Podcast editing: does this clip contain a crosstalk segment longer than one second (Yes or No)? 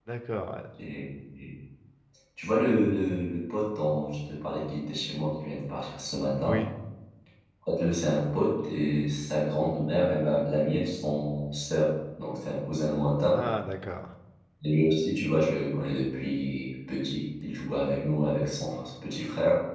No